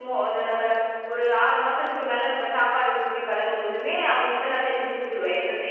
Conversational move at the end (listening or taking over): taking over